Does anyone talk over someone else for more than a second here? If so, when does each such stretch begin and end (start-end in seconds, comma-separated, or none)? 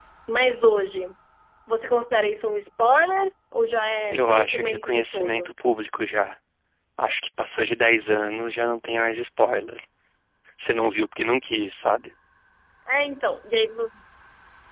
4.1-5.5